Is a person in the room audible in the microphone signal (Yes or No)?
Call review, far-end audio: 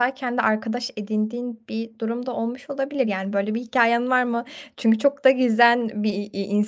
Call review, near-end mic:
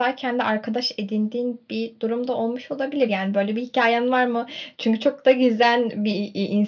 No